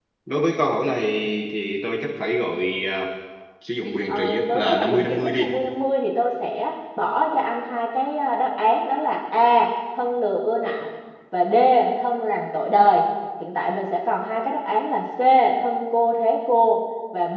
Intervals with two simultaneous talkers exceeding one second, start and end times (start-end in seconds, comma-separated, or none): 4.1-5.6